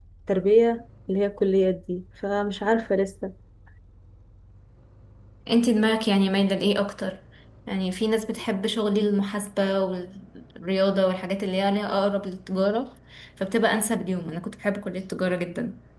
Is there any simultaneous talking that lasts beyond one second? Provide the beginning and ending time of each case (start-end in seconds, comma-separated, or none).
none